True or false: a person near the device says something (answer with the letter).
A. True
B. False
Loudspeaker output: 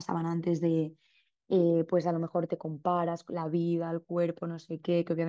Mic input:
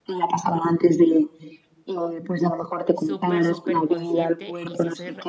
A